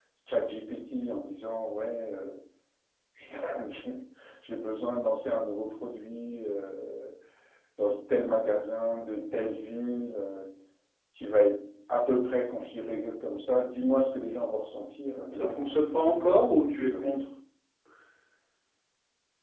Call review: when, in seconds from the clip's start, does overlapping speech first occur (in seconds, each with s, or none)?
15.3 s